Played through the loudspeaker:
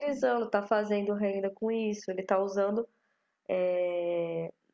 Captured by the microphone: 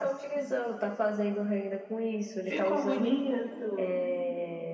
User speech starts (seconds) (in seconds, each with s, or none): 2.5 s